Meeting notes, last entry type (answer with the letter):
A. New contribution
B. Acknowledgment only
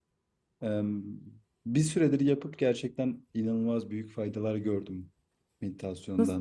A